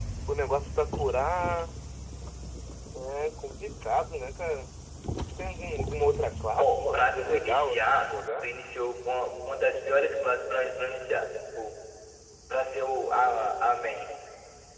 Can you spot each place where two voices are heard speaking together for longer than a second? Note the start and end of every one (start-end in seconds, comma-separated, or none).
6.6-8.5